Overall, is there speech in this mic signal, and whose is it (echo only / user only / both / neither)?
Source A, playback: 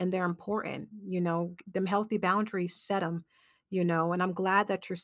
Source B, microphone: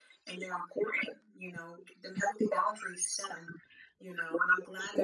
echo only